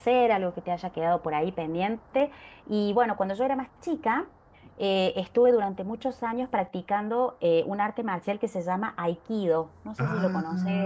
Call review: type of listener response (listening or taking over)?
taking over